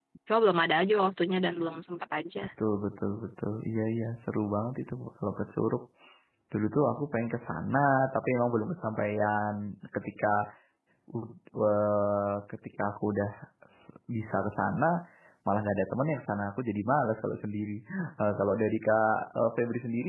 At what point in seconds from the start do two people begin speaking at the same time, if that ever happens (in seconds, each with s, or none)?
none